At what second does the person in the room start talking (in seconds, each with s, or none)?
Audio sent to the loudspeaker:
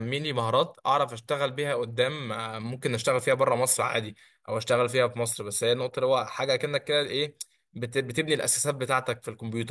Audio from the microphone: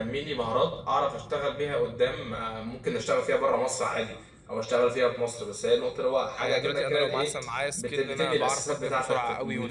6.4 s